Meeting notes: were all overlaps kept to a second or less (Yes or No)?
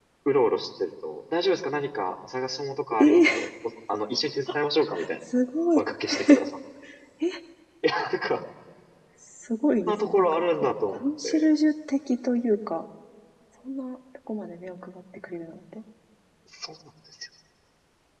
No